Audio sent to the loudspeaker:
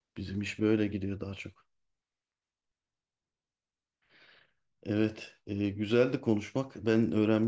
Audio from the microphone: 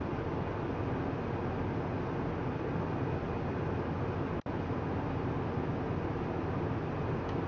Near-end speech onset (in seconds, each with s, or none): none